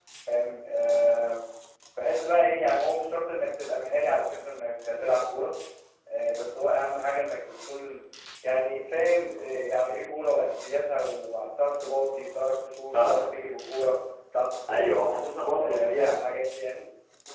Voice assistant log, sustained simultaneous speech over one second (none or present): none